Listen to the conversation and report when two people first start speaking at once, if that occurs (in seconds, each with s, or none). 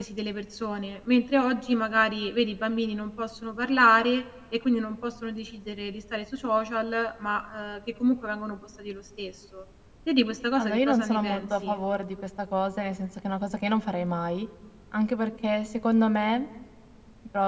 10.6 s